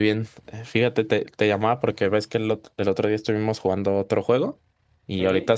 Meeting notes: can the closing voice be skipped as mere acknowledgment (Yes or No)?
Yes